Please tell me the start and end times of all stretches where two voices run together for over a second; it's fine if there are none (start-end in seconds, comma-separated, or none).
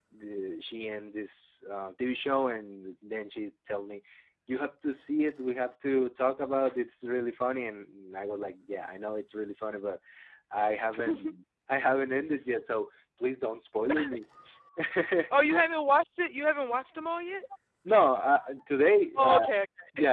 none